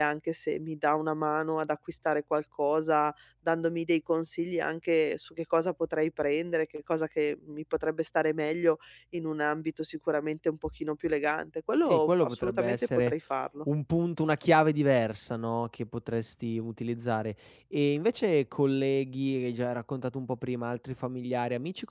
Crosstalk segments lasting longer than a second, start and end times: 11.9-13.1

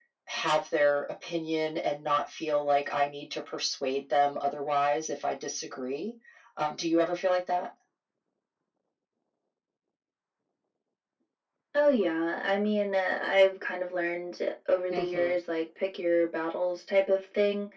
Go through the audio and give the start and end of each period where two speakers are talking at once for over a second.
none

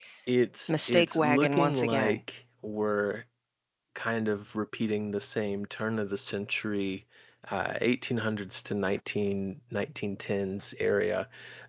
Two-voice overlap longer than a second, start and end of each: 0.7-2.2

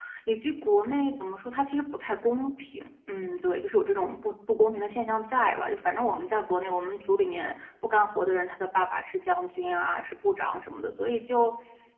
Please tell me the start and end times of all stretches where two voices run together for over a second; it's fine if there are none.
none

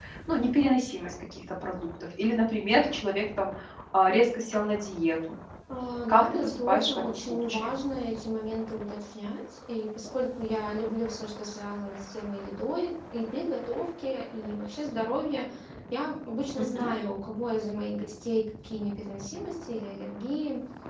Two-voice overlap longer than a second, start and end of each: 6.1-7.7

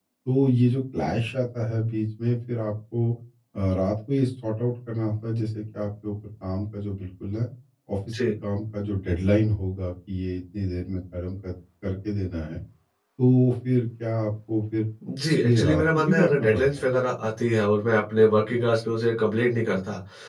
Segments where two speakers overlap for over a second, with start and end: 15.2-16.8

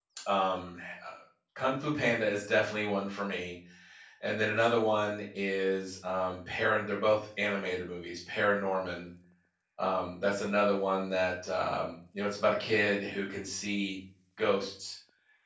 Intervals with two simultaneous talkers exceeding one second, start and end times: none

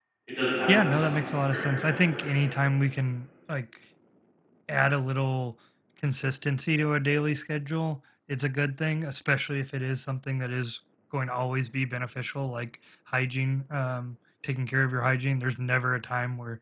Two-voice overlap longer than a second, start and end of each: 0.8-2.4

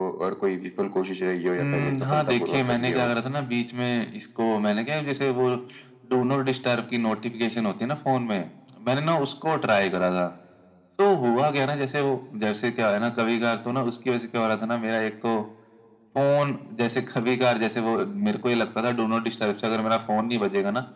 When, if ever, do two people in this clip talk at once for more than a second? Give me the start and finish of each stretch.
1.6-3.1

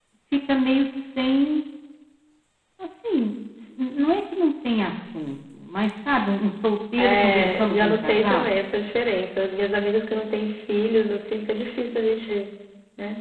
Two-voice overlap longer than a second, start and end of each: 7.0-8.5

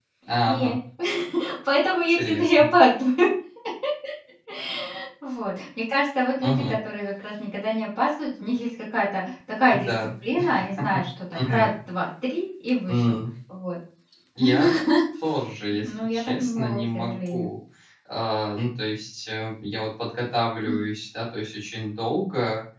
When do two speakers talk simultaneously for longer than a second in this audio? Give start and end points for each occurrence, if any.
15.8-17.5

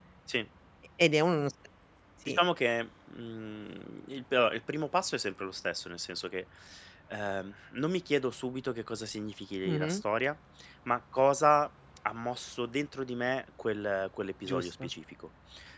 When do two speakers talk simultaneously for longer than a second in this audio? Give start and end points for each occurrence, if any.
none

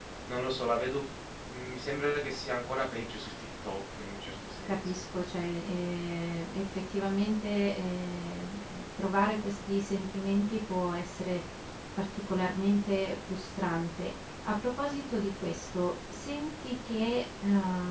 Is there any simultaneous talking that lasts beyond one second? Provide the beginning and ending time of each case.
none

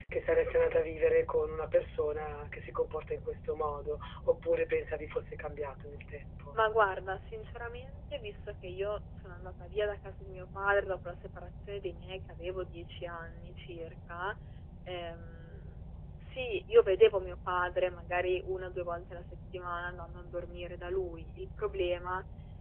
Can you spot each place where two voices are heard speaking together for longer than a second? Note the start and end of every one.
none

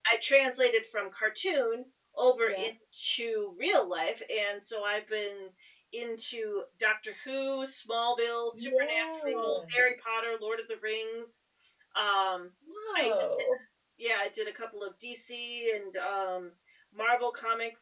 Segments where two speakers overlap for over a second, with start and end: 8.5-9.8

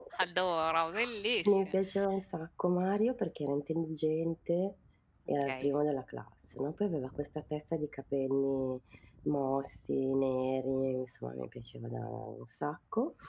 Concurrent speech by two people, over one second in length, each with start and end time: none

